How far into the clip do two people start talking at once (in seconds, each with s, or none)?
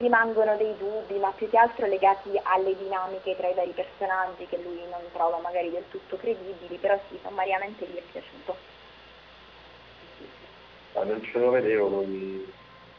none